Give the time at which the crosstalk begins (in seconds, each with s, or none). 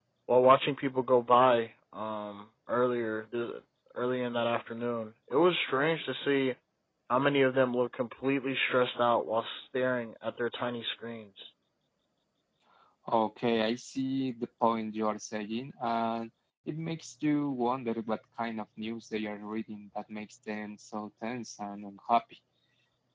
none